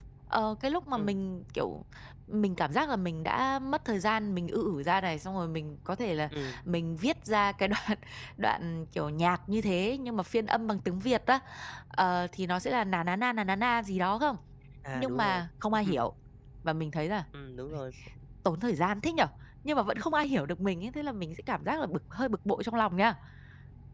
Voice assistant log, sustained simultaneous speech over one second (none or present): none